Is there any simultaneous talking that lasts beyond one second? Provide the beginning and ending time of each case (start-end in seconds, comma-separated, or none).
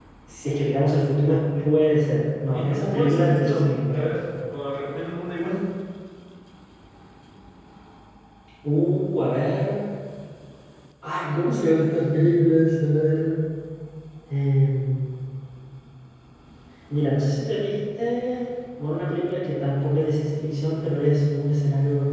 2.5-4.2